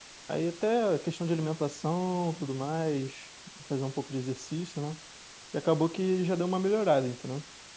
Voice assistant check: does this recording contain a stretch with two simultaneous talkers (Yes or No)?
No